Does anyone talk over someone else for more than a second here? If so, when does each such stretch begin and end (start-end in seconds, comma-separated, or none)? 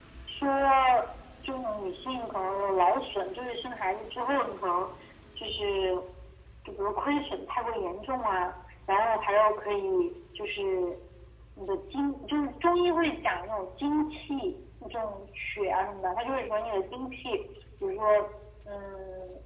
none